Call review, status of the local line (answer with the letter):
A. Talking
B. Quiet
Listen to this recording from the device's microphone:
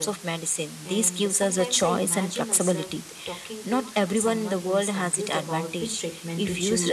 A